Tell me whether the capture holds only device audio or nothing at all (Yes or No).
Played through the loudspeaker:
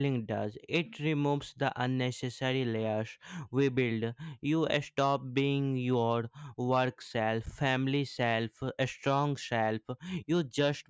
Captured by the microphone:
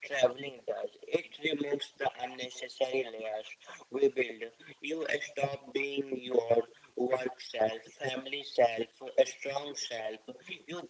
Yes